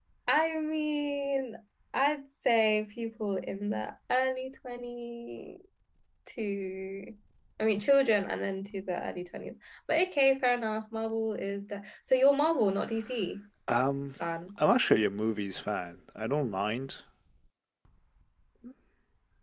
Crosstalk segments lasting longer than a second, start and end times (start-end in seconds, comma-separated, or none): none